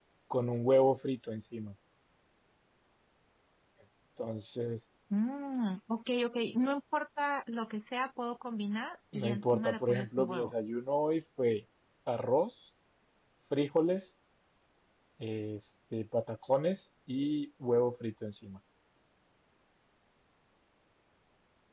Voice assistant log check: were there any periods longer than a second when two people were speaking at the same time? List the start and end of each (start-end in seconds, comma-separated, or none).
9.1-10.5